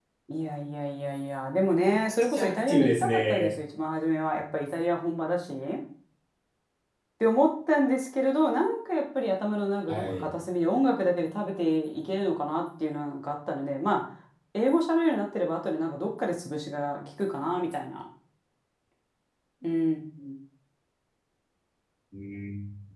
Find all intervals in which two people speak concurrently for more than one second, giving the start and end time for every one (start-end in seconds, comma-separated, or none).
2.0-3.5